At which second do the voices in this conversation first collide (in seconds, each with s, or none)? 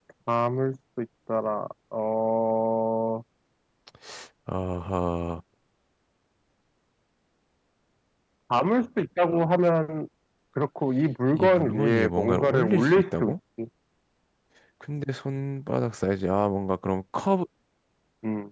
11.3 s